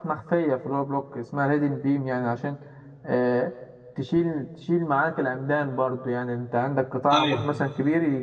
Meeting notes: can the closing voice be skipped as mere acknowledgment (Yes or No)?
Yes